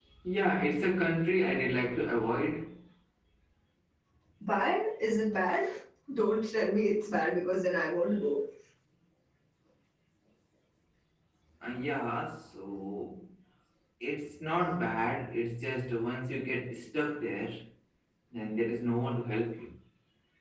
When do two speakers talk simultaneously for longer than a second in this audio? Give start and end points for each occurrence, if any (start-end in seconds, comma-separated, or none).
none